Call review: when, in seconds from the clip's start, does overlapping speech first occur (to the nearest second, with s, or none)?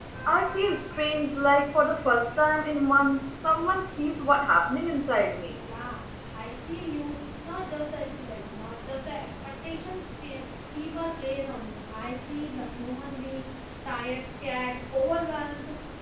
none